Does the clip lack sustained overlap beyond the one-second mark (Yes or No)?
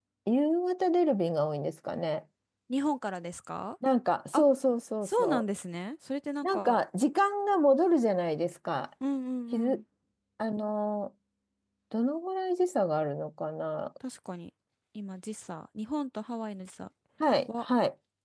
Yes